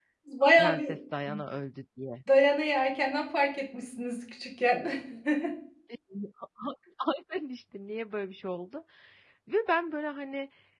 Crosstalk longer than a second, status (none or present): none